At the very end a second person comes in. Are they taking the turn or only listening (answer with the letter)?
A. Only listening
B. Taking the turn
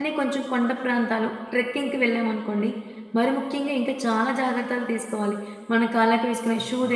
A